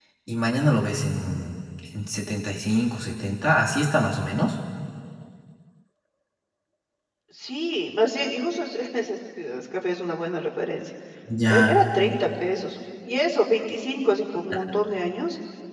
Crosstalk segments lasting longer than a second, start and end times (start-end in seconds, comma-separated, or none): none